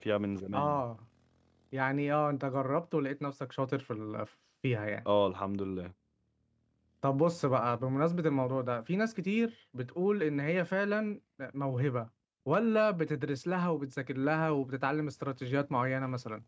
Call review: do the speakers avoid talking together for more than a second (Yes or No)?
Yes